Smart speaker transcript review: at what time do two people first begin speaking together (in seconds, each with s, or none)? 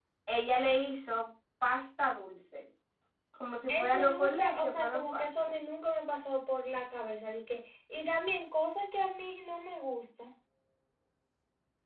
3.7 s